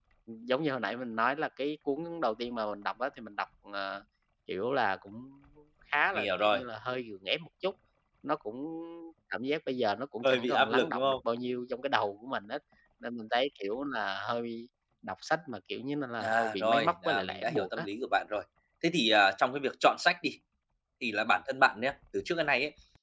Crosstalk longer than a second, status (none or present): present